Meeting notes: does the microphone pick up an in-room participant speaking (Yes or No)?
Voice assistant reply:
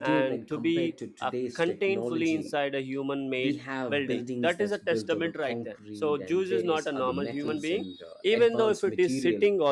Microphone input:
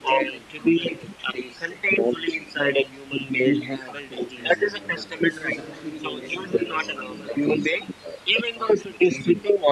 Yes